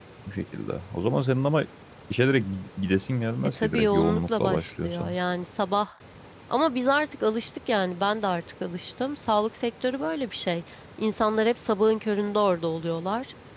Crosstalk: present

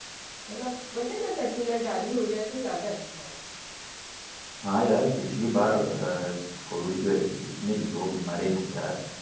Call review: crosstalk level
none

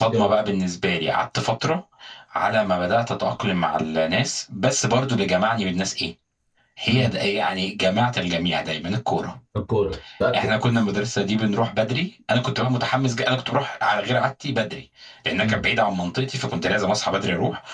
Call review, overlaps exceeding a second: none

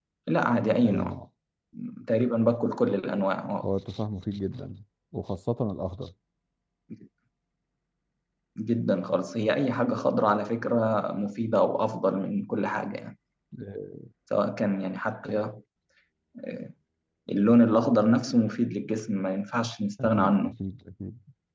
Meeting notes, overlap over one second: none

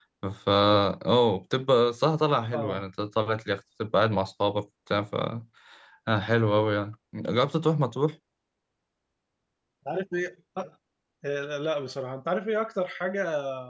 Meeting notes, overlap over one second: none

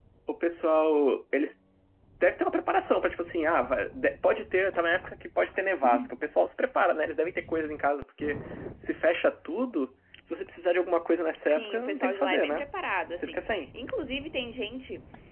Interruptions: present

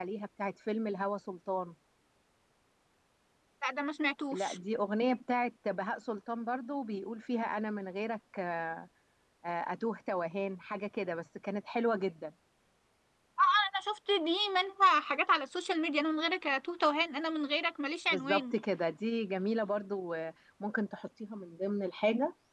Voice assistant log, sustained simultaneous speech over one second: none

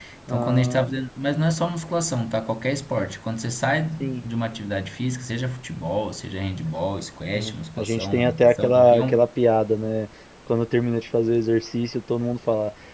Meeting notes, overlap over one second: present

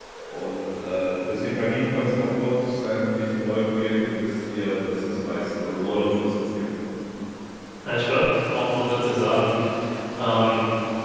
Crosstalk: none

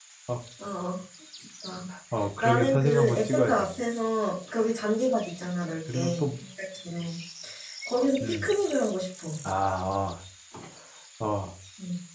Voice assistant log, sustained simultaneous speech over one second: present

